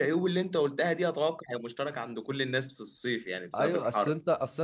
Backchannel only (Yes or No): No